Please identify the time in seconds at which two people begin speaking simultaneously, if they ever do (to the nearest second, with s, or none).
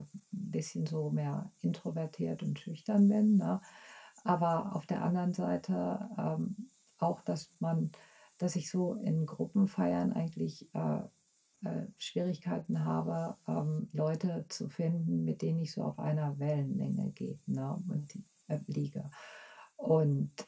none